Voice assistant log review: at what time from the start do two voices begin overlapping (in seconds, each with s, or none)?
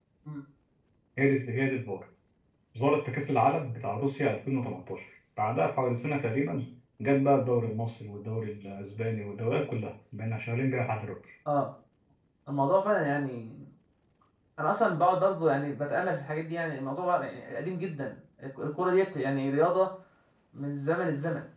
none